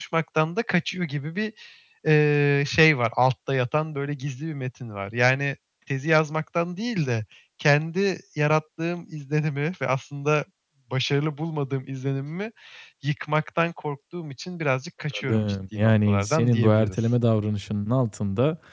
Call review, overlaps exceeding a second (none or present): present